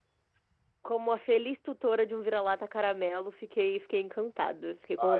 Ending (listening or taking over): taking over